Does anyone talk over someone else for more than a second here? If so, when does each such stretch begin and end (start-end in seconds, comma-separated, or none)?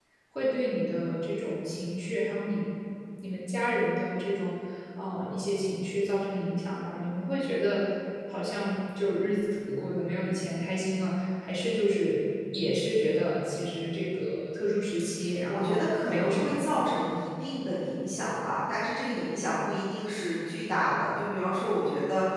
15.5-16.7